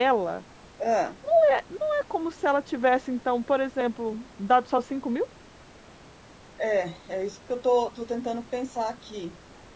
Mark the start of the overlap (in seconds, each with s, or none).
none